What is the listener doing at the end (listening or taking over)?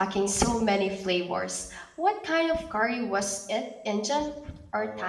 taking over